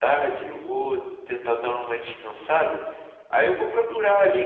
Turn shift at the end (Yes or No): No